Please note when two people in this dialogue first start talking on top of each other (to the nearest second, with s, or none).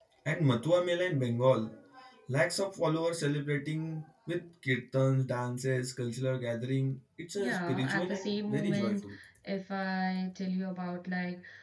7 s